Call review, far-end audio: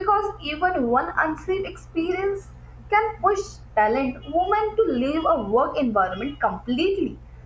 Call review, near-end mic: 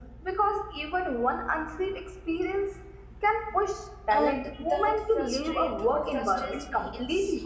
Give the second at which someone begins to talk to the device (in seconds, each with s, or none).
4.1 s